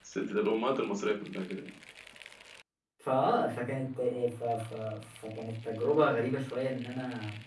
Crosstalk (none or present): none